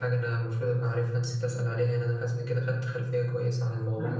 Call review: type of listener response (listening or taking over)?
taking over